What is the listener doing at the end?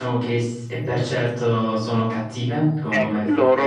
taking over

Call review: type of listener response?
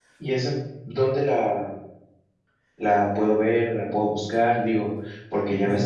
listening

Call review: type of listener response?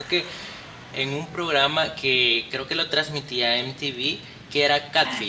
taking over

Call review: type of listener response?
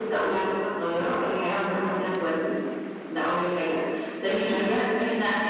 listening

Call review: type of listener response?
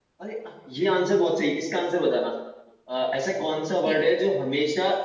listening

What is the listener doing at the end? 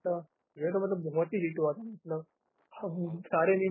listening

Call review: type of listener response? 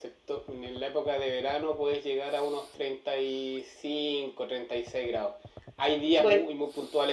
listening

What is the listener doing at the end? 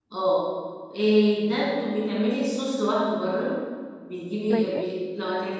listening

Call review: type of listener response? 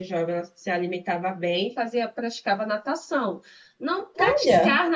listening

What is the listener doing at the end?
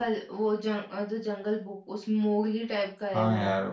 taking over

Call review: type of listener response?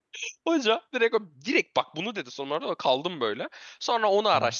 listening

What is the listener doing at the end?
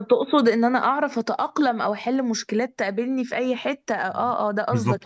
taking over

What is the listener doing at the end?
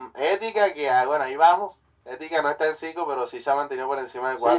taking over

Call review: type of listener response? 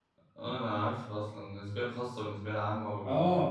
taking over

